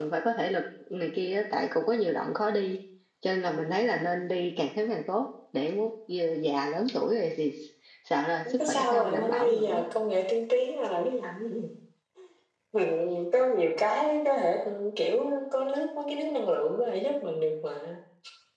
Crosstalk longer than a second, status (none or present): present